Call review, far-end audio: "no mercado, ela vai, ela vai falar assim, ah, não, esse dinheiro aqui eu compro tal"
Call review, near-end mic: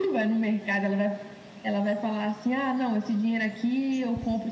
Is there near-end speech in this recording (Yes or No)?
No